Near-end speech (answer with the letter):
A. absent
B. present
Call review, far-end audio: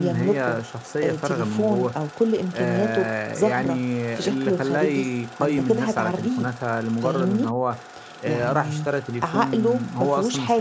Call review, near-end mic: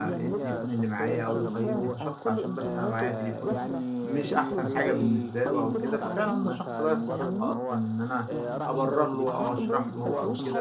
B